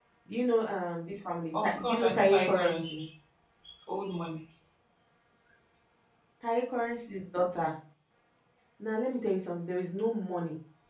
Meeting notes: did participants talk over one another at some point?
Yes, from 1.5 s

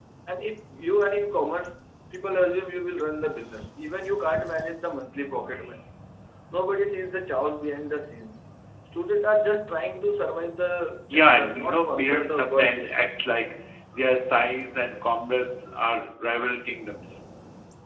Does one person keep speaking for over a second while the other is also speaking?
Yes, from 11.1 s

